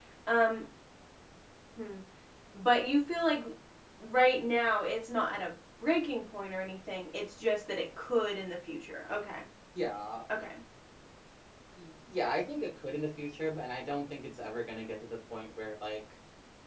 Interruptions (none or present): none